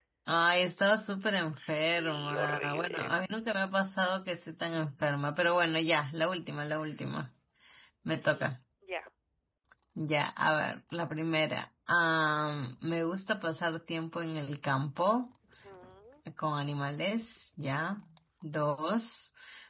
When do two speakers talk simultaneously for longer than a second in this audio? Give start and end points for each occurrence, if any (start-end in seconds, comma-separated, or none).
1.6-3.1